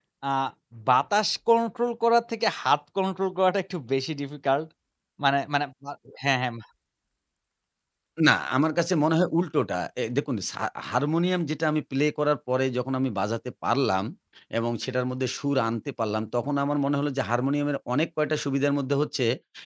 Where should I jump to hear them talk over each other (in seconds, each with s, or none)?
none